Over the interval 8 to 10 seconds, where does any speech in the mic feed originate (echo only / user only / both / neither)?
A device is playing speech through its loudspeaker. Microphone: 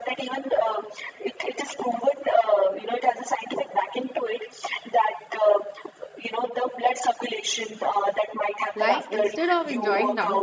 both